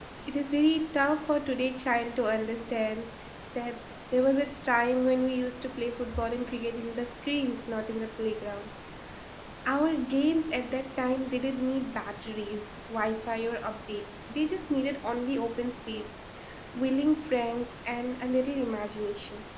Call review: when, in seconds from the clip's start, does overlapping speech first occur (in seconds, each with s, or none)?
none